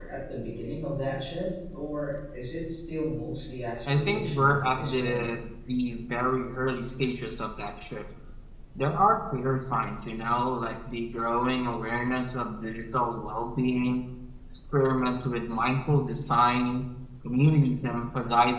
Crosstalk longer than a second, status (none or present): present